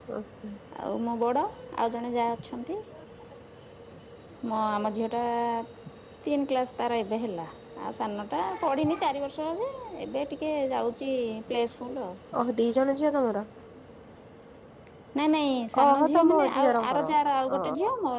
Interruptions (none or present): present